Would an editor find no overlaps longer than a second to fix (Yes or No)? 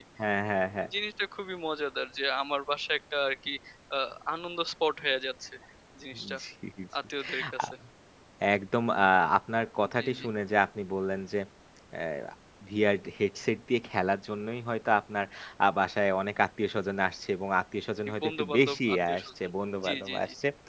No